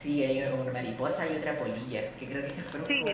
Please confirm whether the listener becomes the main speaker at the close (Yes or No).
Yes